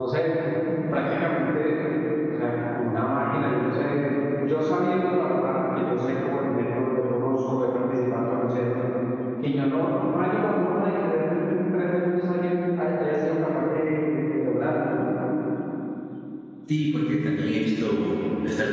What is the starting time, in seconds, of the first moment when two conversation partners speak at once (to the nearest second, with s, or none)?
none